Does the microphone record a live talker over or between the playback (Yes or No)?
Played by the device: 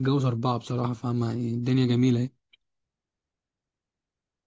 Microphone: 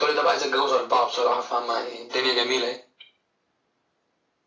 No